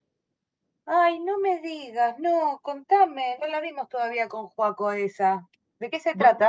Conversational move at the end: taking over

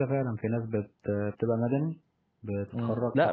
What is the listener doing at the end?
taking over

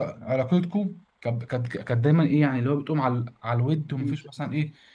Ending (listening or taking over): listening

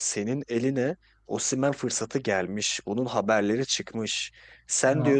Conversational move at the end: listening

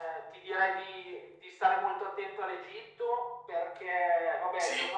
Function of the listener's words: listening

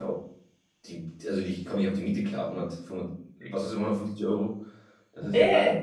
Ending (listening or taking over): taking over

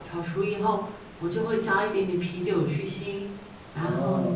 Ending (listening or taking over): taking over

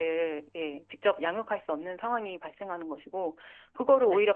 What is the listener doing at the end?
listening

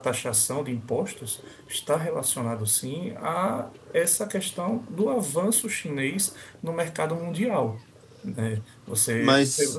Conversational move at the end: listening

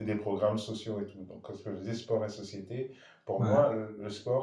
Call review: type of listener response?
listening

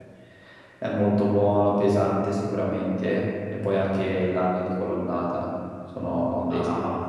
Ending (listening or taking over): taking over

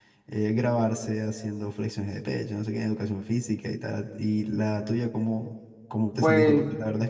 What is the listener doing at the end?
listening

